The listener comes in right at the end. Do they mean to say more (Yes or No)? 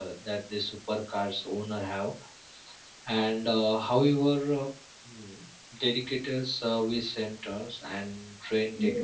Yes